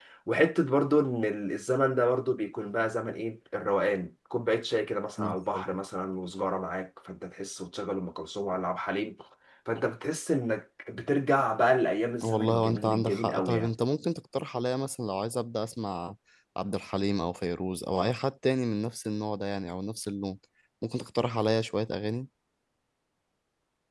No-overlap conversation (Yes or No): No